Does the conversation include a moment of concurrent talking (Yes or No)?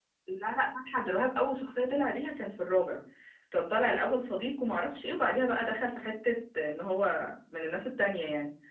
No